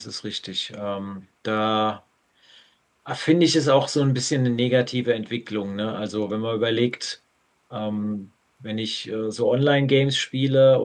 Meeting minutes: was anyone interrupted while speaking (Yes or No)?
No